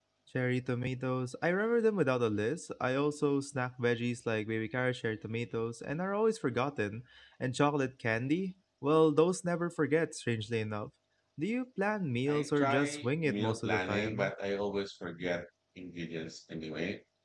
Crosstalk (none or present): present